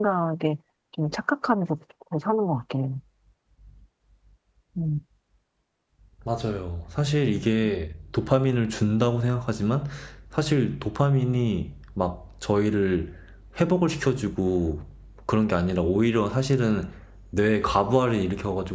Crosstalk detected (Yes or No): No